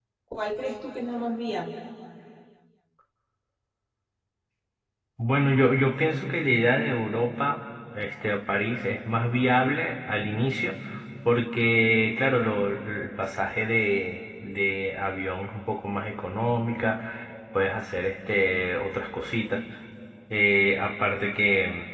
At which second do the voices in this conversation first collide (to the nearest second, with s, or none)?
none